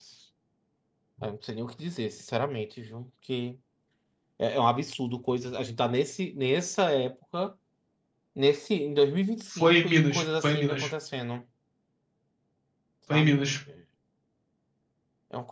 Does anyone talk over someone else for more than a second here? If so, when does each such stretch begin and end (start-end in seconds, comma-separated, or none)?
9.5-10.9